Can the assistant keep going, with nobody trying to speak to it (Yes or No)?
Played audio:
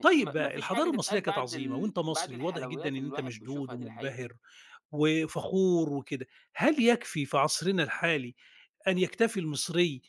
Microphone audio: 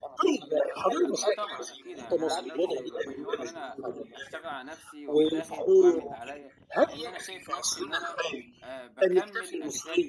No